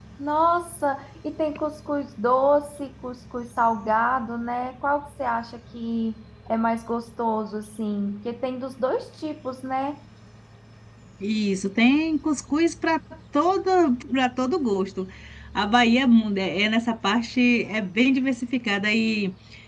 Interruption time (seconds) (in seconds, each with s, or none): none